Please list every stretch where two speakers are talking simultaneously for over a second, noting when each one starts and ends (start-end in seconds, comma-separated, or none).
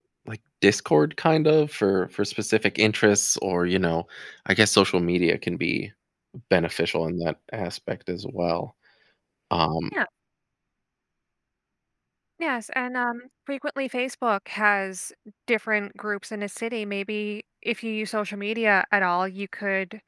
none